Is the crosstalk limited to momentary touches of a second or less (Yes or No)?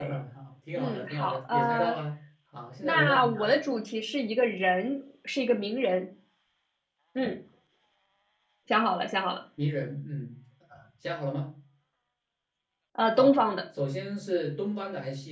No